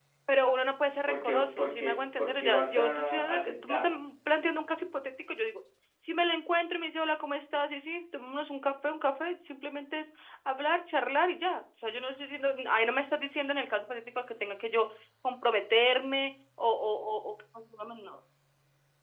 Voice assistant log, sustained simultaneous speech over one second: present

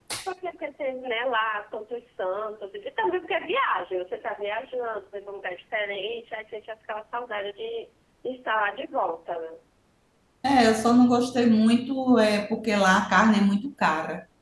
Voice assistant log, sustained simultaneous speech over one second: none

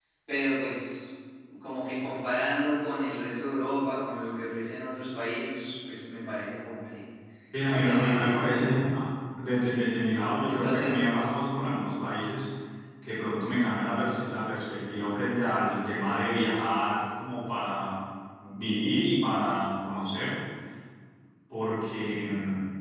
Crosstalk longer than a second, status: present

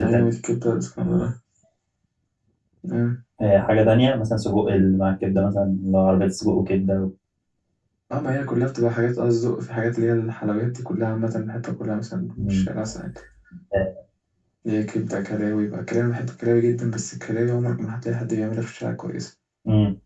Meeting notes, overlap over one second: none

